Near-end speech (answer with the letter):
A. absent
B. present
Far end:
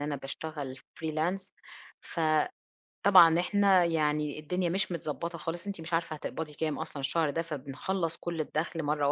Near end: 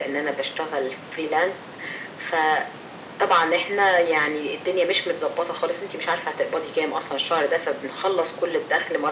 A